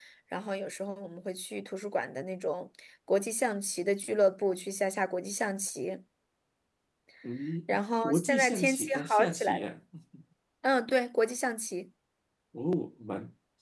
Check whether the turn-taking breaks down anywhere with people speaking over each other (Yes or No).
Yes